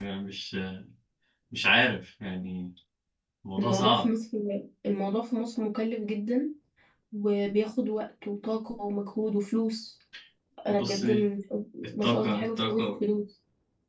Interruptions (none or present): present